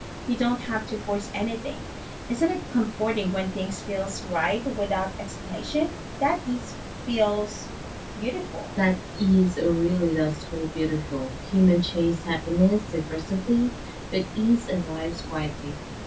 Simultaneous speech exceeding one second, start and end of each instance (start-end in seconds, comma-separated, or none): none